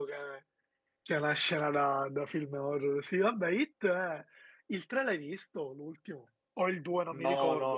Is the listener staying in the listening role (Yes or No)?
No